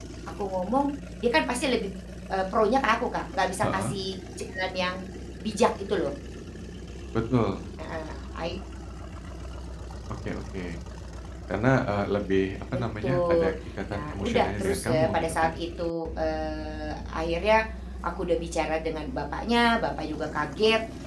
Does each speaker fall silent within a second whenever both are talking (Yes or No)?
No